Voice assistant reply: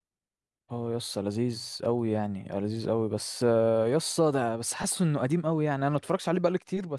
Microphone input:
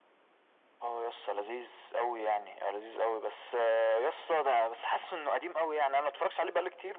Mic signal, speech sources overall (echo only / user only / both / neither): echo only